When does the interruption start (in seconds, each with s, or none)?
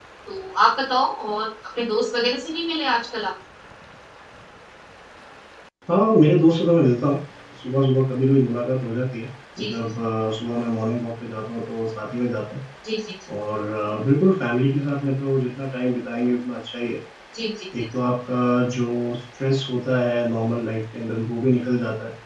none